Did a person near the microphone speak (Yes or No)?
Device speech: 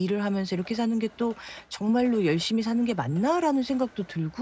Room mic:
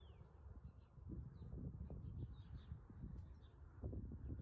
No